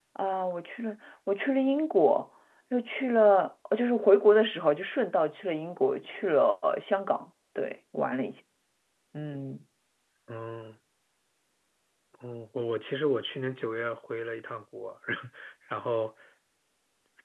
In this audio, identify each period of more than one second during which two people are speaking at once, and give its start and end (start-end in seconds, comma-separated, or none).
none